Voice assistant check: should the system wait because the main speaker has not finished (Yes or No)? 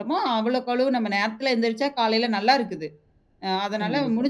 Yes